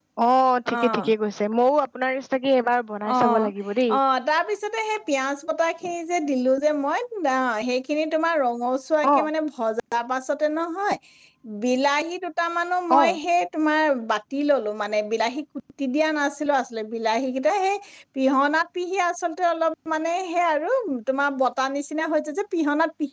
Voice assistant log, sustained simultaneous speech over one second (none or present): none